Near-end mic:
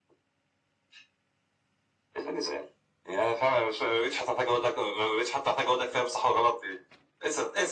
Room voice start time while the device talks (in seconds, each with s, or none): none